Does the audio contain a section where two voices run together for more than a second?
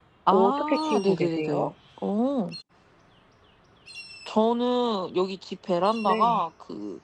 Yes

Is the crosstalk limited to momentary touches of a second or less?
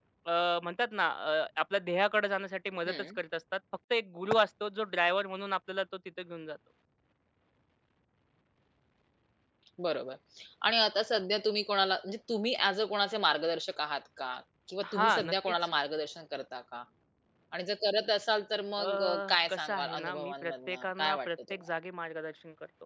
No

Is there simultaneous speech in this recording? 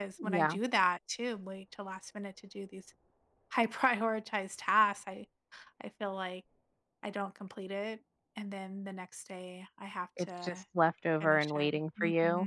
Yes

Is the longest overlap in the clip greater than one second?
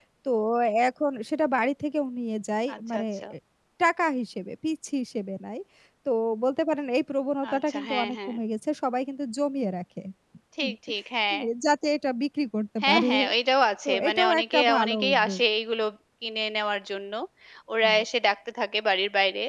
Yes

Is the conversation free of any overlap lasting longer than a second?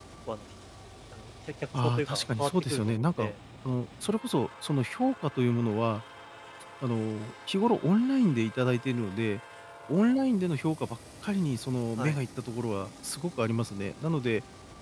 No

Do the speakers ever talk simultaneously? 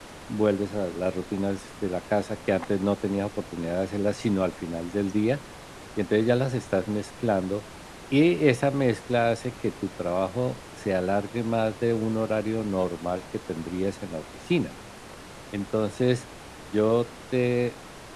No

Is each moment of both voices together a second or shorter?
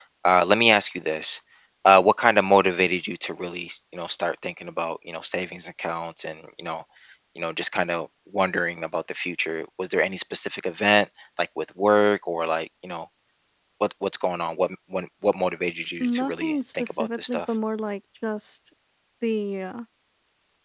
No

